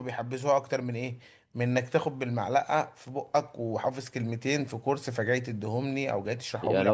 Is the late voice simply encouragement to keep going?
No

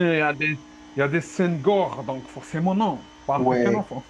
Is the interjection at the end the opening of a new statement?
Yes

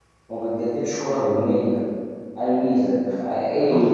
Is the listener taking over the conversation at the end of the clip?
No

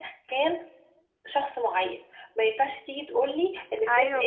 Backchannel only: Yes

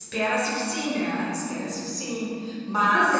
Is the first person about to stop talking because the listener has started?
Yes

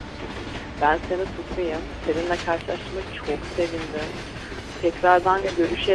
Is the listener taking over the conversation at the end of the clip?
No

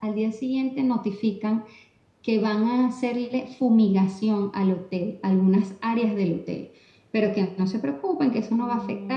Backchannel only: Yes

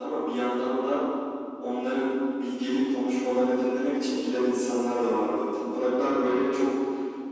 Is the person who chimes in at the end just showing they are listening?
Yes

